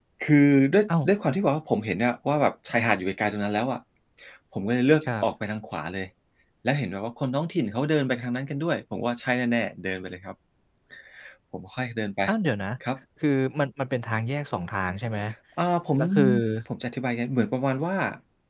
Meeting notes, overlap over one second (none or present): none